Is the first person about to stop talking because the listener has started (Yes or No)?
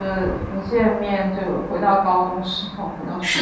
Yes